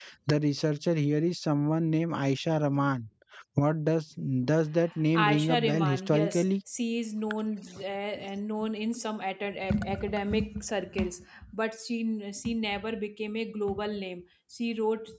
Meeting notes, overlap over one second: present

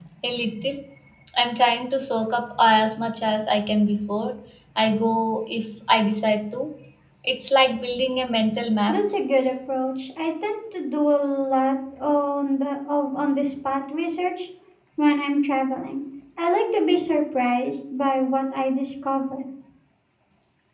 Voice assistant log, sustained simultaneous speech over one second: none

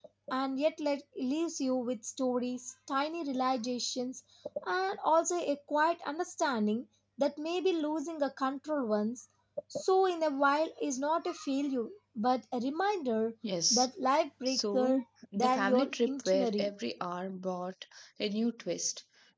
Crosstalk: present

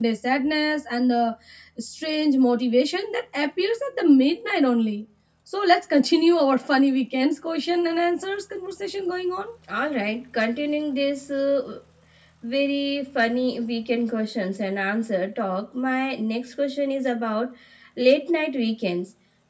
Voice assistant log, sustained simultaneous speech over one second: none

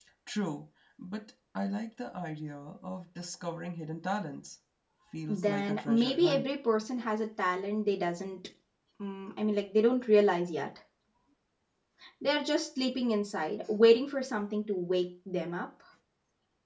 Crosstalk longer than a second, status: present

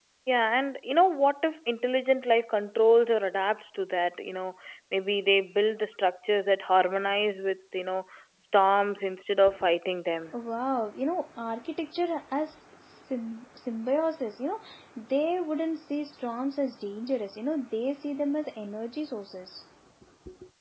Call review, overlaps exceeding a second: none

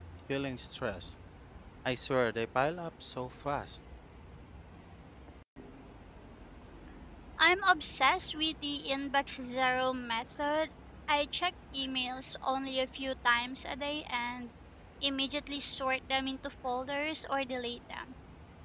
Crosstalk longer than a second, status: none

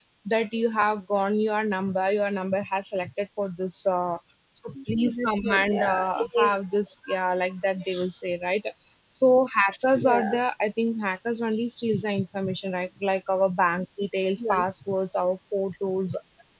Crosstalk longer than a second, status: present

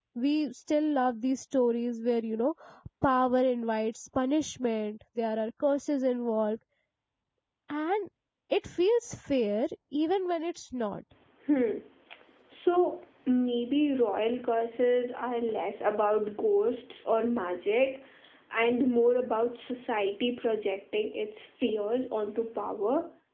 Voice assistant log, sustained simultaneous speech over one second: none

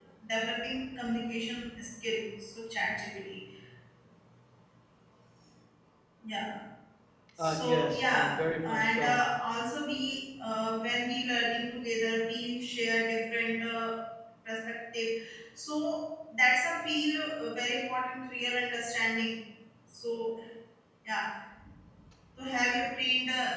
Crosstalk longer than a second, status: present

